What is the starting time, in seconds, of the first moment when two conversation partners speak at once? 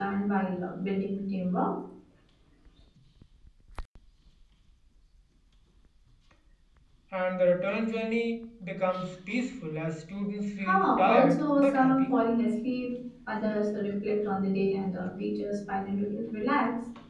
10.7 s

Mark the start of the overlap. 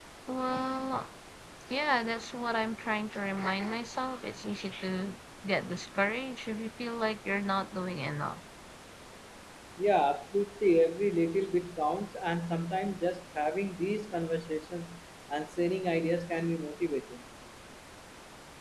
none

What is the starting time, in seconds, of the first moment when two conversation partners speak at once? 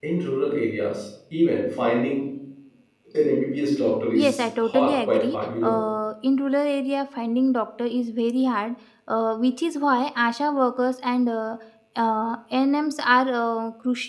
4.1 s

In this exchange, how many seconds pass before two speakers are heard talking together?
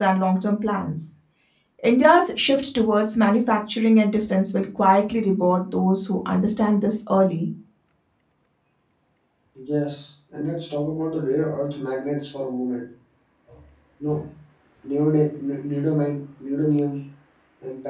none

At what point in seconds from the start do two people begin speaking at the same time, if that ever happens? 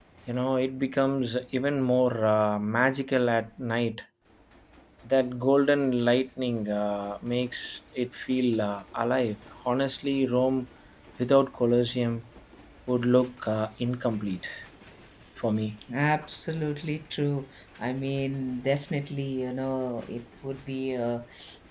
none

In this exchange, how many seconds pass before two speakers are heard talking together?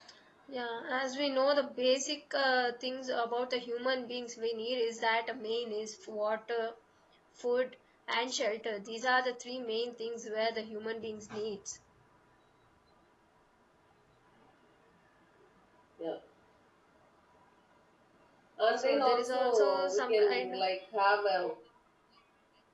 18.8 s

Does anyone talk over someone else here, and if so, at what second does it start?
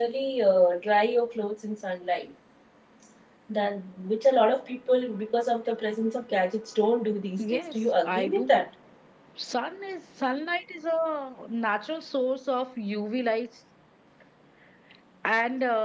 7.4 s

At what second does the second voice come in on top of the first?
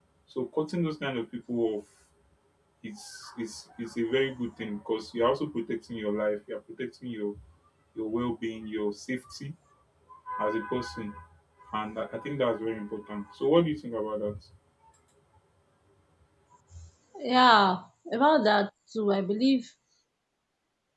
none

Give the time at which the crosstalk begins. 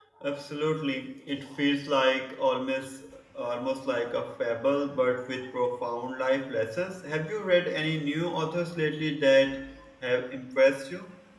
none

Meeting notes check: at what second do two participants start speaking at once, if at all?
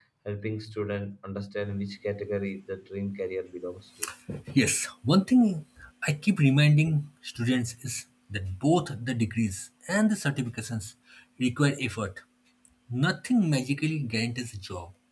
none

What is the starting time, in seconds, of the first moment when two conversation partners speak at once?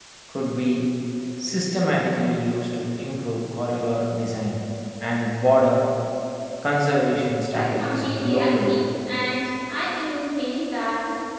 7.5 s

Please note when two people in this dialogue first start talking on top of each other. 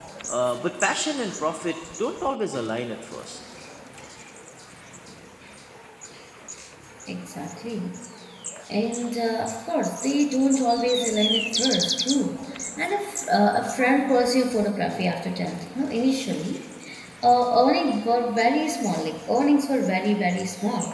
none

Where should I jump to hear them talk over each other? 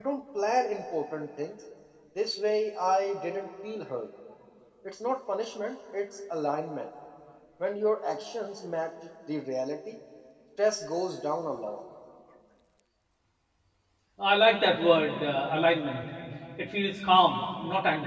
none

